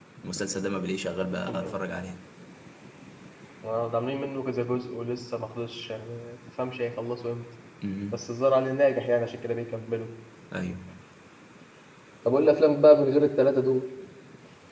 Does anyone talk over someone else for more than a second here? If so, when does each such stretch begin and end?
none

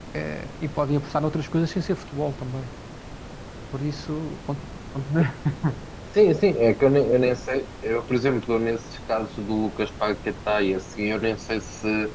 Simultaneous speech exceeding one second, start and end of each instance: none

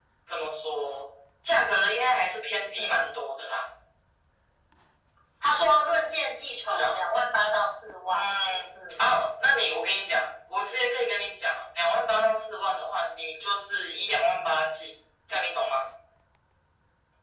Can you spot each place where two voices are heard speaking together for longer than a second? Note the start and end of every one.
none

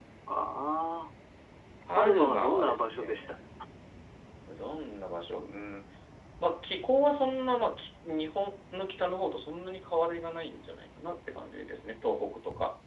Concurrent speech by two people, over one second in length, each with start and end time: 2.0-3.2

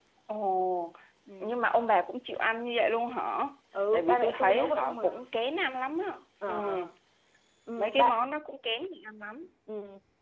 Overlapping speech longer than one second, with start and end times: 3.9-5.3

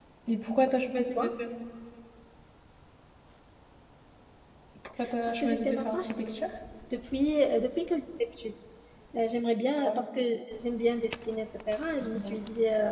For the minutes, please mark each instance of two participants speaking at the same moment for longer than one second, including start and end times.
5.2-6.5

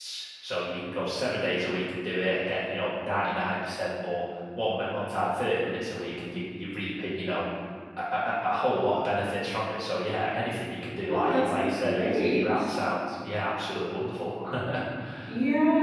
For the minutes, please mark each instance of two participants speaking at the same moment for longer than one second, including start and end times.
11.1-12.6

